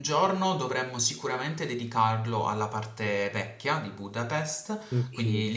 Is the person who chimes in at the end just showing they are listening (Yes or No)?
Yes